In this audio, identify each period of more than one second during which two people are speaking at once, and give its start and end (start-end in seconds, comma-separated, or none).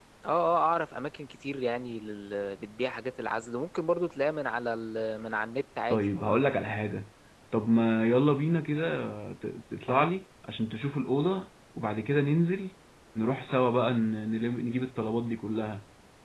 none